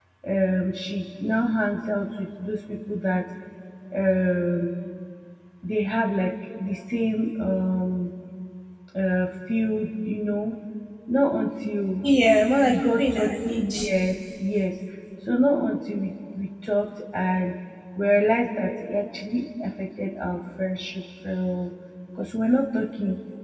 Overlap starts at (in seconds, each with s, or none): 12.7 s